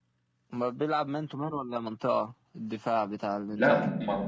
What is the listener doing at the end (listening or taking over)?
taking over